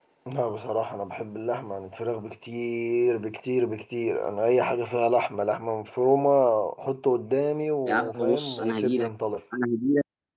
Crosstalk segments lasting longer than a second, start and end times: 7.9-9.1

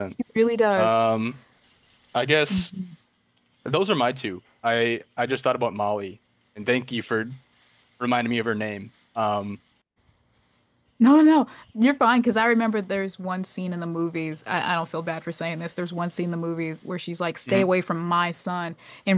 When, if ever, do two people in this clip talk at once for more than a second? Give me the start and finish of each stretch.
none

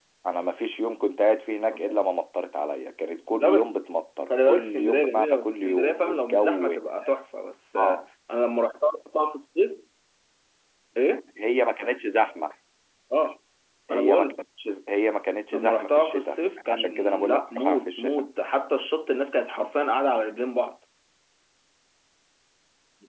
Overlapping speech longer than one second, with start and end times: 4.3-7.1, 15.5-18.3

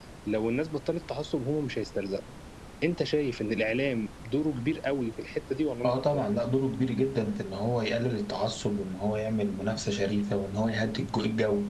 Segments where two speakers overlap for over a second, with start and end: none

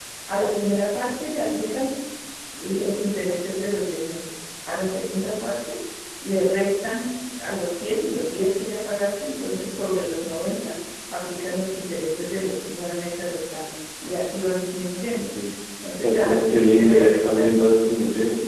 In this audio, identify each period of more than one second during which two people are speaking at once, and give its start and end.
16.0-17.5

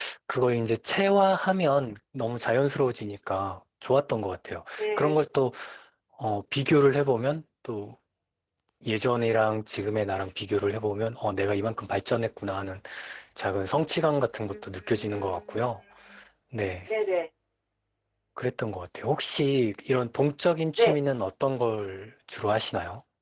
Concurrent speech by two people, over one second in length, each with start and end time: 14.5-15.8

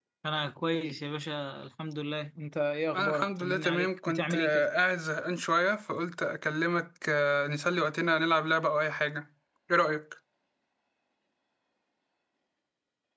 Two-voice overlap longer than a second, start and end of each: 3.0-4.6

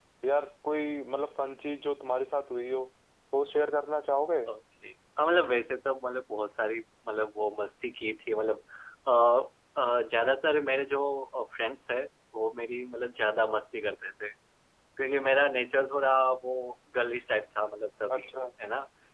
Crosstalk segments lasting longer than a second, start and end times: none

